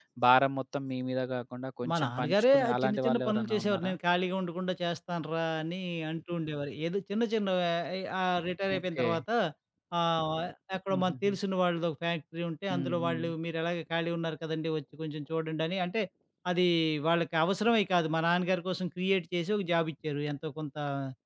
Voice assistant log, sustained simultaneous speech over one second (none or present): present